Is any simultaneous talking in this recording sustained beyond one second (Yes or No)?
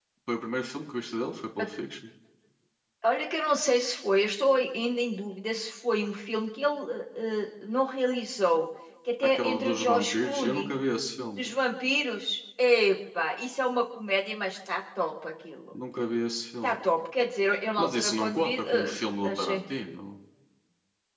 Yes